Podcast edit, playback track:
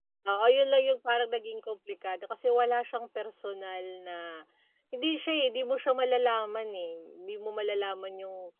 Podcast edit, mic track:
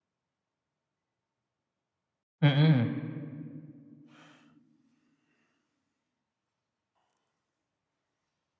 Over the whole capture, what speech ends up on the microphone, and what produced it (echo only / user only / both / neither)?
user only